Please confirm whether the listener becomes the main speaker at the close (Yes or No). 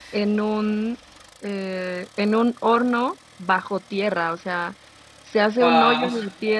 No